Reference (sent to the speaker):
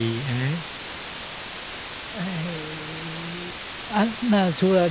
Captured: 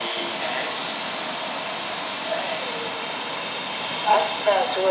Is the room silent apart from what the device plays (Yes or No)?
Yes